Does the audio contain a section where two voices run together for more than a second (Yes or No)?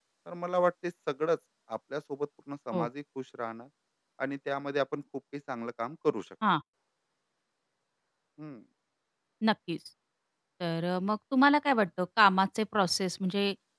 No